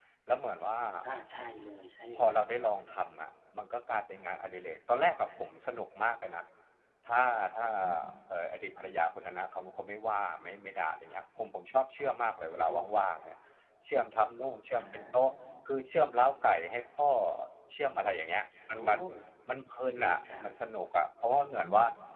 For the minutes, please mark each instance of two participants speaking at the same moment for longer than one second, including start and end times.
none

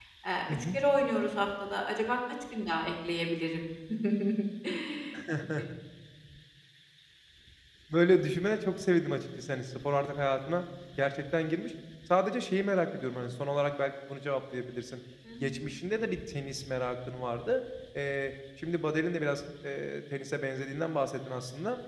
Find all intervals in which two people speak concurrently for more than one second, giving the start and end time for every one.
none

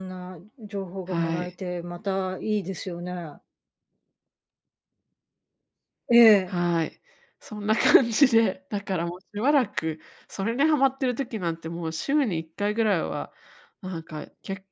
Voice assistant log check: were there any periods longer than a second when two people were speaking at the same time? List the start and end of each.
none

